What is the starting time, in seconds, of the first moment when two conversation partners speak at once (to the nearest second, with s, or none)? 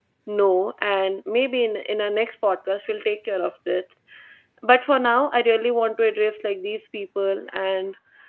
none